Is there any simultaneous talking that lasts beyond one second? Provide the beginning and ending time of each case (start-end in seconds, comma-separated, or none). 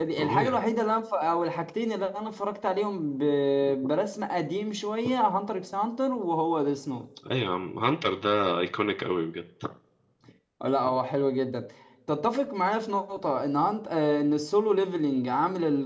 none